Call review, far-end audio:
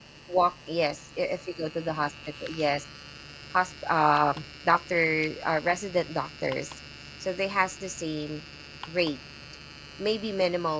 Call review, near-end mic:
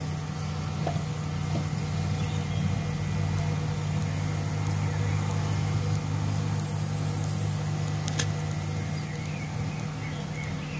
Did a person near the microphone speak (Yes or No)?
No